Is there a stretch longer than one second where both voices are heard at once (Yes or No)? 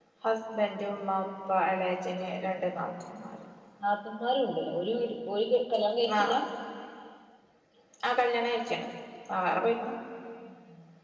No